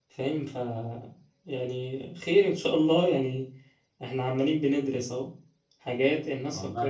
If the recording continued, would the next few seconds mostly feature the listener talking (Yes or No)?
No